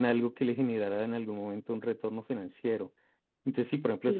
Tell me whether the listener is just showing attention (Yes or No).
Yes